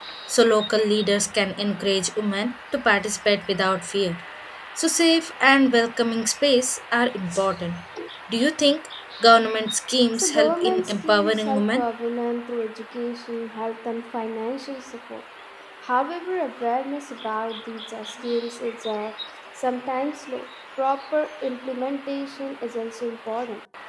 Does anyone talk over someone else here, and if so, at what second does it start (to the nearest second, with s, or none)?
10 s